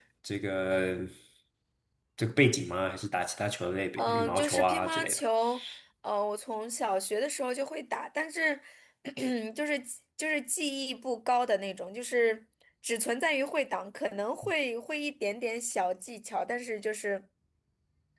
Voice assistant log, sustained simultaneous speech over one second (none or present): present